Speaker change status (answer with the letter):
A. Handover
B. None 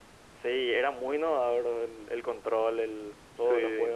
A